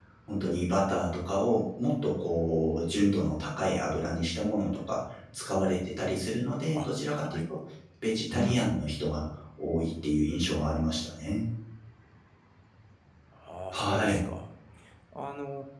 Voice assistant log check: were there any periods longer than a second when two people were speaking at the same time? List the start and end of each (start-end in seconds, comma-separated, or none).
none